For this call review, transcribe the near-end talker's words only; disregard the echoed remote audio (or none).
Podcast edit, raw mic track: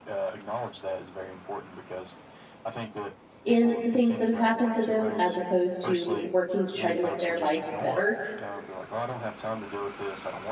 in the things that have happened to them as opposed to working to try to make their life better.